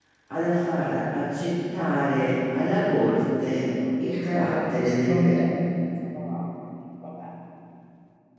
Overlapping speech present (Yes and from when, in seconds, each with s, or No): Yes, from 3.8 s